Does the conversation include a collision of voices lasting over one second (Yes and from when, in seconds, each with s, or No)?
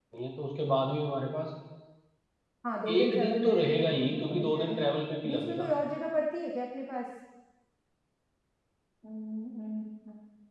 Yes, from 2.9 s